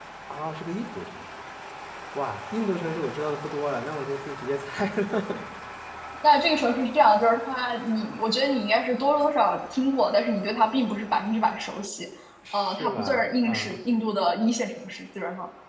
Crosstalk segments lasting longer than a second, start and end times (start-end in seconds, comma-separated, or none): 12.5-13.7